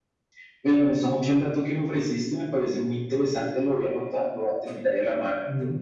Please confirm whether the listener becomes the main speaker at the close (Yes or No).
No